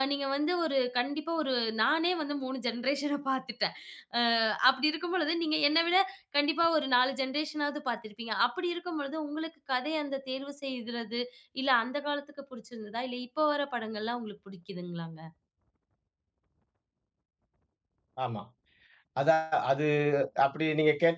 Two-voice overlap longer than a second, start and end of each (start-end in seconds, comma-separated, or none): none